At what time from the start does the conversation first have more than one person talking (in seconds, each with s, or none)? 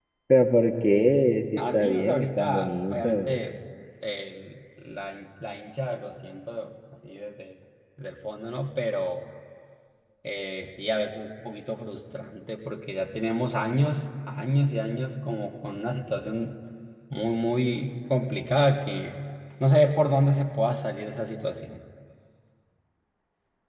1.6 s